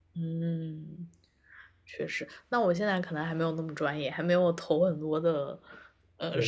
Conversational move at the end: listening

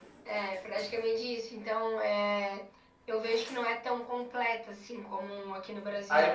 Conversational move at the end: taking over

